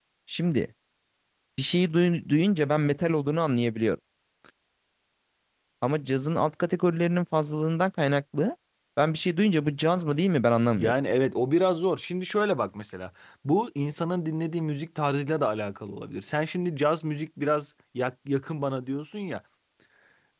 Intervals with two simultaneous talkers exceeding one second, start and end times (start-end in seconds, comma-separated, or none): none